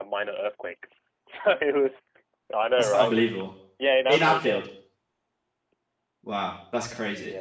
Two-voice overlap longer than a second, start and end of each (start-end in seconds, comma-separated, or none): none